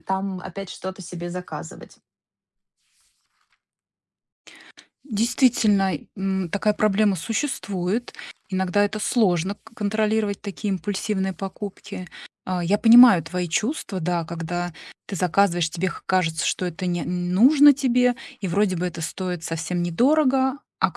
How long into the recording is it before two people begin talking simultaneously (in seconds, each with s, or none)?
none